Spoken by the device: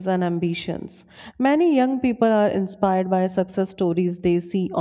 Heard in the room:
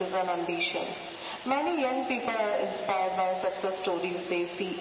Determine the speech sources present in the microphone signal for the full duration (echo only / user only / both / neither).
echo only